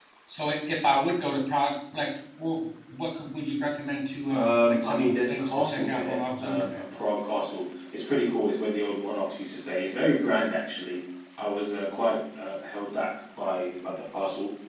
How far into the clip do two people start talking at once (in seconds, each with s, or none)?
4.3 s